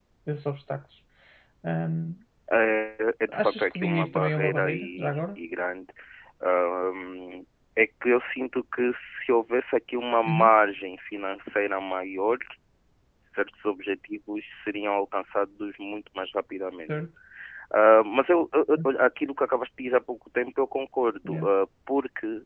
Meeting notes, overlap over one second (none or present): present